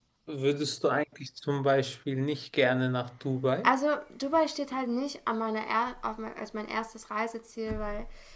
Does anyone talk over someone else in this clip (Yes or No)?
No